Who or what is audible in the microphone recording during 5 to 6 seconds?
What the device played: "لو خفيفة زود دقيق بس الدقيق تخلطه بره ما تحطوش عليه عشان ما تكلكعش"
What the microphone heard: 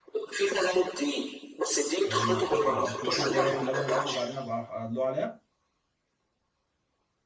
user only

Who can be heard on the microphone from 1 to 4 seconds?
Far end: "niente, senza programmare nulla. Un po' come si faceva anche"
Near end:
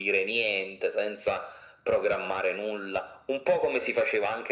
echo only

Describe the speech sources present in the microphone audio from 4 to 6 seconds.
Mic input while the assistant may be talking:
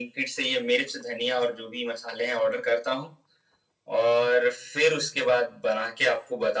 echo only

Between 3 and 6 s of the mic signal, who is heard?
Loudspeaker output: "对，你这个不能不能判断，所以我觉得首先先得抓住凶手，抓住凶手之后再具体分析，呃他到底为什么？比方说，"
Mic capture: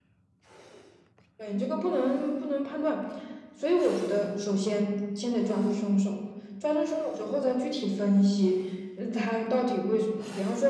echo only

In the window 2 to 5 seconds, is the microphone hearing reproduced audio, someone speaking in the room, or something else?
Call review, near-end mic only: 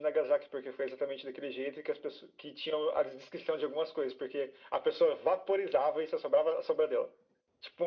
echo only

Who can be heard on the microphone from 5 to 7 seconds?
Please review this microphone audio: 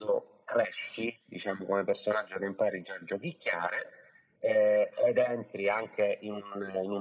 echo only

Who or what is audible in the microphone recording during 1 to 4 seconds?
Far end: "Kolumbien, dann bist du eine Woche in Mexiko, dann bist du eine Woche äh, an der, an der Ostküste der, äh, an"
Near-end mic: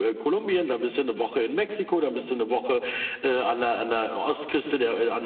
echo only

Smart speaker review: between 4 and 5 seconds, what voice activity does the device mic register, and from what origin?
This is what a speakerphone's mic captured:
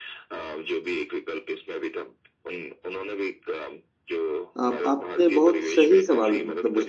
both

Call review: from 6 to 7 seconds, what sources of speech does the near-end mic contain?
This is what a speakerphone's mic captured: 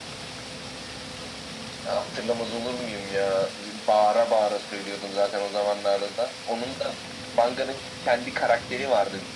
echo only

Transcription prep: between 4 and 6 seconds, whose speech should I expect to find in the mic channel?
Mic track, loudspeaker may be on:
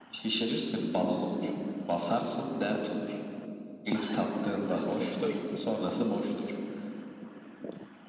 both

